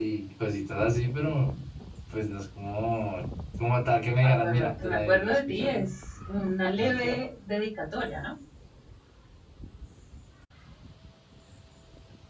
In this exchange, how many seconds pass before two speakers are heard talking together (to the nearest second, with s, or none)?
4 s